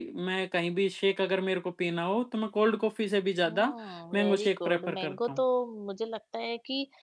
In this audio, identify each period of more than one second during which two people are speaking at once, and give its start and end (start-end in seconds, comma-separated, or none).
4.1-5.4